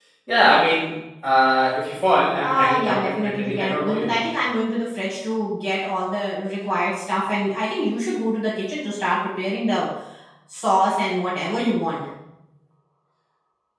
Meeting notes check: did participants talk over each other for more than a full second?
Yes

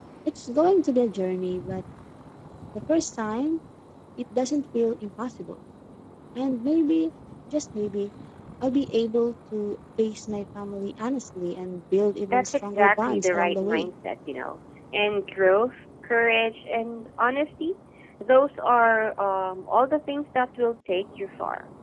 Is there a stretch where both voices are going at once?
Yes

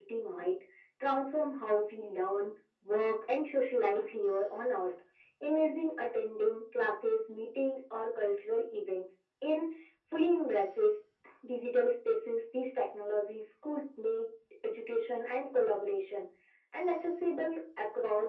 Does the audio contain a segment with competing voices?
No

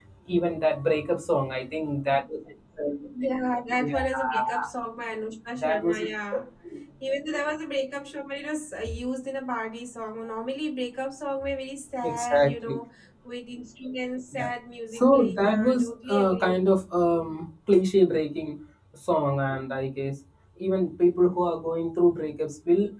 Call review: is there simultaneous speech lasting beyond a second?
Yes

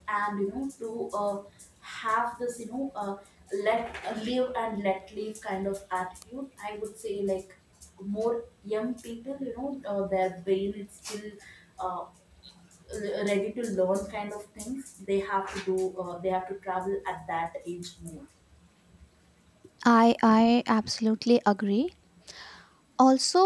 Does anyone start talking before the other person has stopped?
No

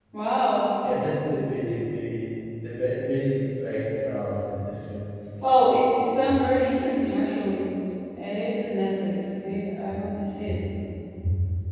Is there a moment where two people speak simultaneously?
No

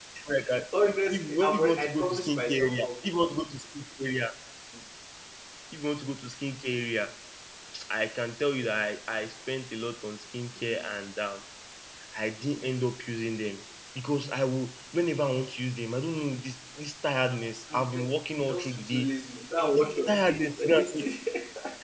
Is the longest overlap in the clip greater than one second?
Yes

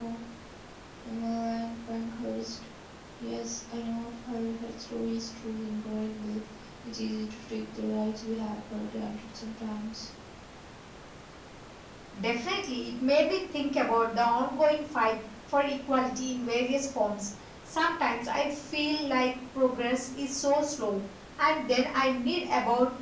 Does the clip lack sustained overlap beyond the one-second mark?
Yes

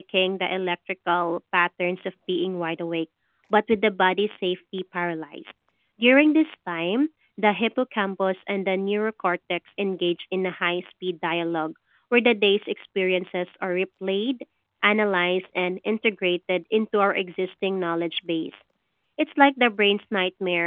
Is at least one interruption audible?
No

